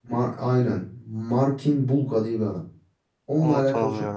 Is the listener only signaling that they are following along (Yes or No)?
Yes